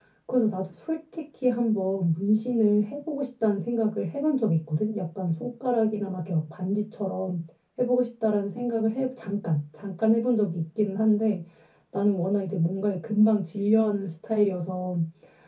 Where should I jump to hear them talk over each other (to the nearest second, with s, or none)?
none